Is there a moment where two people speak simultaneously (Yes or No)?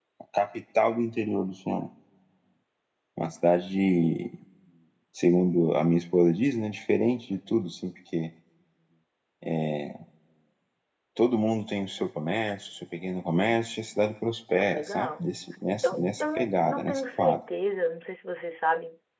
Yes